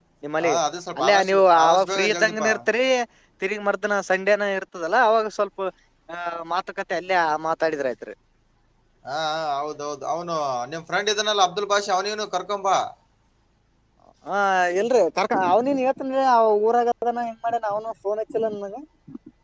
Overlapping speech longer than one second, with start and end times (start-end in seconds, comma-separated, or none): 1.0-2.4